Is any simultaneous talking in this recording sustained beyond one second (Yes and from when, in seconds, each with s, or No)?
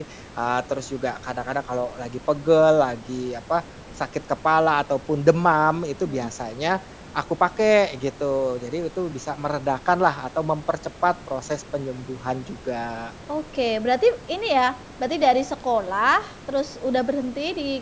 No